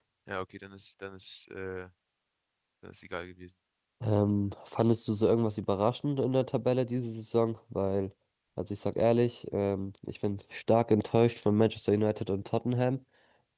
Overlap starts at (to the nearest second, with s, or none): none